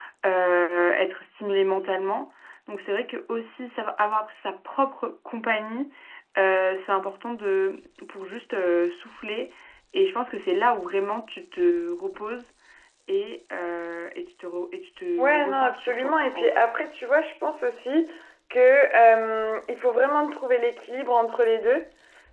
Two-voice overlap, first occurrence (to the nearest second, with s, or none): 15 s